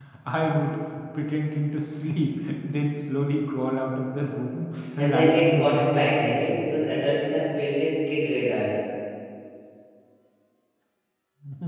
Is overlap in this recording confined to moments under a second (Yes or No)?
No